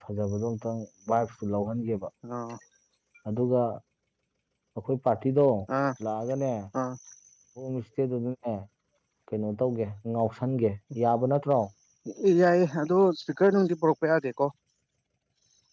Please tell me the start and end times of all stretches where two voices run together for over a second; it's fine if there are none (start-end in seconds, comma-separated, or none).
none